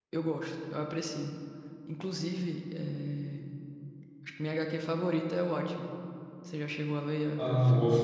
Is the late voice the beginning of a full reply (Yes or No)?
Yes